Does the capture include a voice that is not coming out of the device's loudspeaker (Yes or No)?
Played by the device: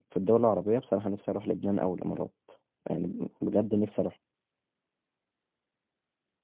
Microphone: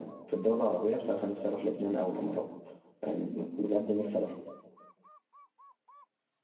No